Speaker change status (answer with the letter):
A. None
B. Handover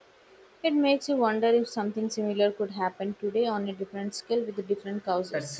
B